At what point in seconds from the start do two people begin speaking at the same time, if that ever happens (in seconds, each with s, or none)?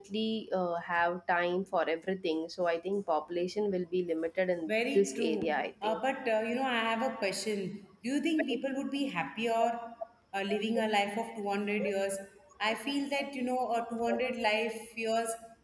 4.7 s